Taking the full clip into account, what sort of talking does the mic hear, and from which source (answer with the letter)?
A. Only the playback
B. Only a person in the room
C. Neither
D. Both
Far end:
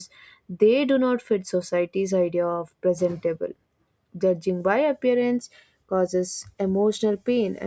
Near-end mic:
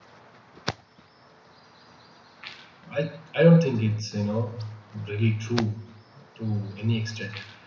B